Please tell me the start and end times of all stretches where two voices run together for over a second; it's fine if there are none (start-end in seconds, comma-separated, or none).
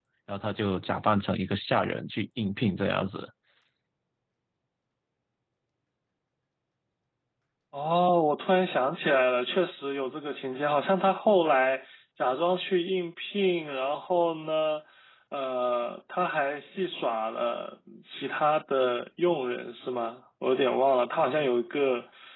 none